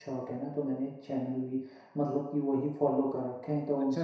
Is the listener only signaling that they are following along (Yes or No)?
No